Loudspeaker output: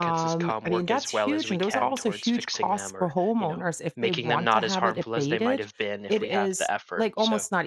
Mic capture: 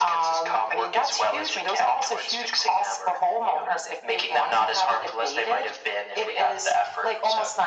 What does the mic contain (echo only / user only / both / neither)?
echo only